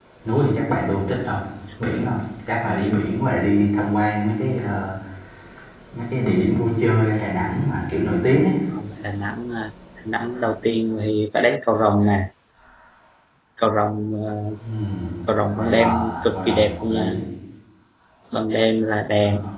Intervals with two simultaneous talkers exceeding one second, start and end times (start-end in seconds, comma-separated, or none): 15.5-17.2